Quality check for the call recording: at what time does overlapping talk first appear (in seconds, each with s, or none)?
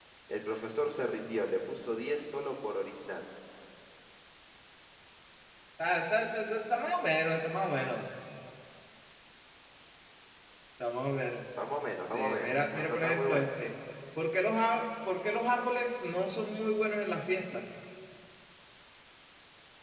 12.1 s